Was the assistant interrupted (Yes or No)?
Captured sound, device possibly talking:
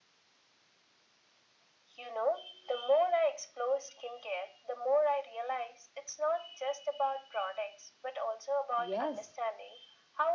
Yes